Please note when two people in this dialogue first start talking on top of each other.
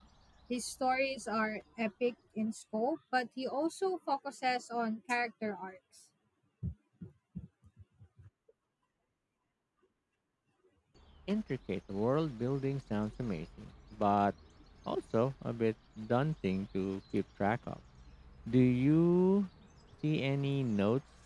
none

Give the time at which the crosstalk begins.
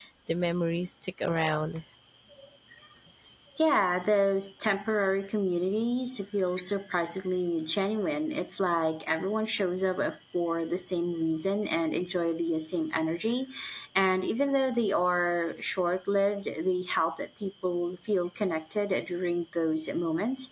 none

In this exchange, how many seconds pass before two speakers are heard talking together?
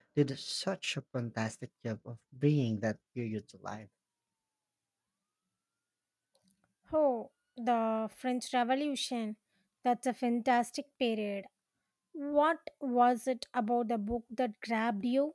none

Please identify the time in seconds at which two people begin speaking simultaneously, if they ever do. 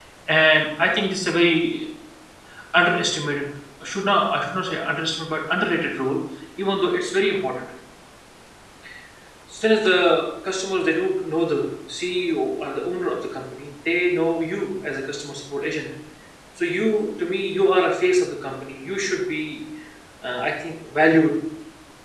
none

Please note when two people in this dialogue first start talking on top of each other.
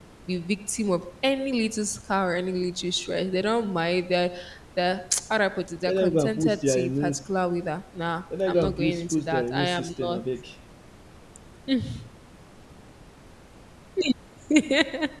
5.9 s

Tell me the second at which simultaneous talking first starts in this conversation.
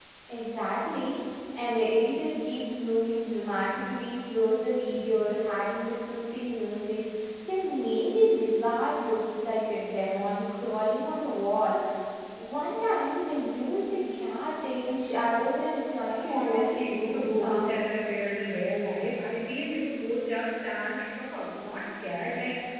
16.3 s

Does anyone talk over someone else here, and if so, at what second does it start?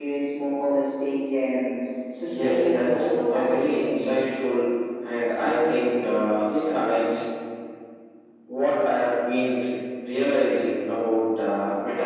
2.3 s

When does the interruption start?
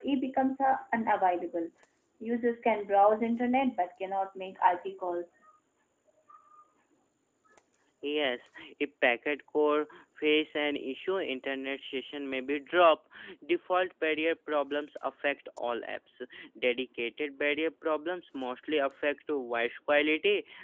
none

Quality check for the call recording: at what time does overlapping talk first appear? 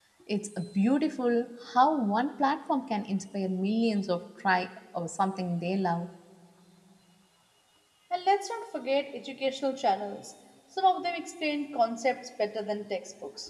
none

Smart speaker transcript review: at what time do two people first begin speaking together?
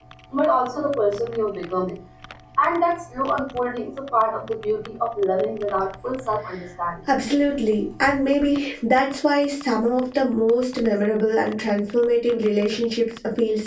none

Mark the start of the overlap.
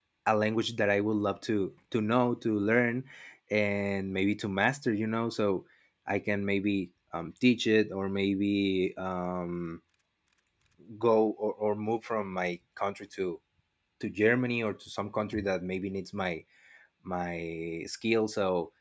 none

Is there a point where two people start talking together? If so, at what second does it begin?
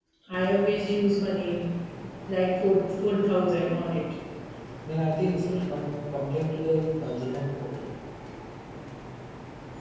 none

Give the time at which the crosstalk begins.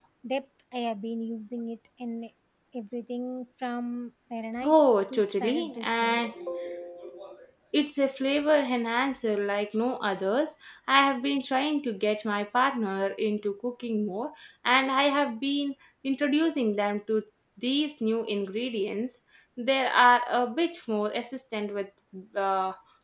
4.6 s

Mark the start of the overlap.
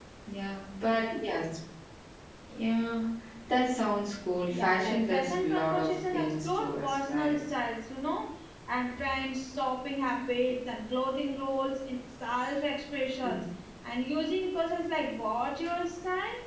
4.6 s

